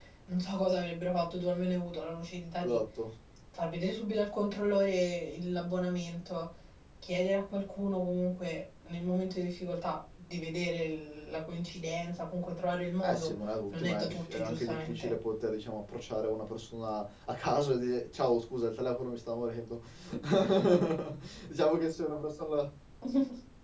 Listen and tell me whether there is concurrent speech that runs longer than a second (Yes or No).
Yes